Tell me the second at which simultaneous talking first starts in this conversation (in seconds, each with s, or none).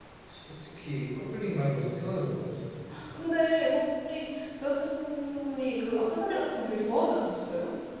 none